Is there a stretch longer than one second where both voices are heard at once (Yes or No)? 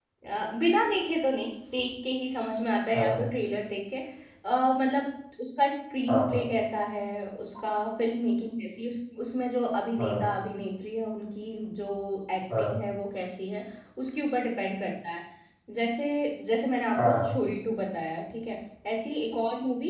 No